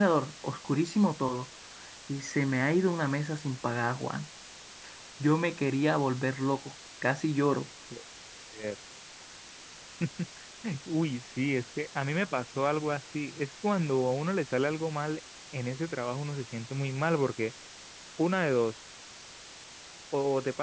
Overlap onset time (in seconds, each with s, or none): none